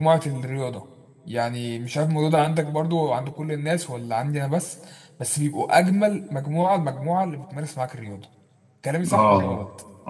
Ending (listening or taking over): taking over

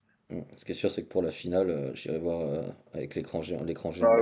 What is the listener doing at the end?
taking over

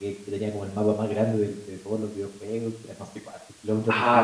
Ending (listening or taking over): taking over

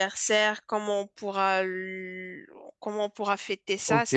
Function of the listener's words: taking over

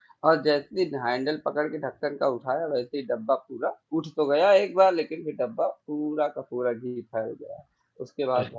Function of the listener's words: listening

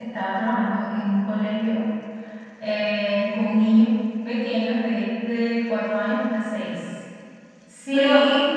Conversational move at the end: listening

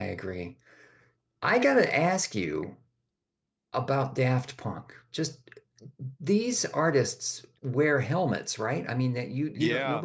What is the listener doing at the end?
taking over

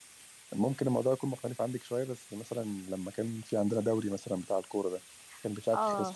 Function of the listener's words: taking over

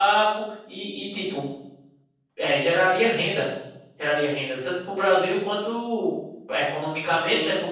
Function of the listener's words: listening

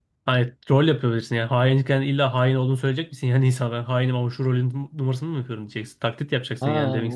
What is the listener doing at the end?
taking over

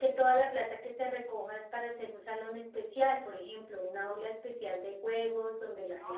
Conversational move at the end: taking over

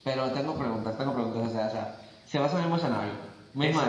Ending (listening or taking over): taking over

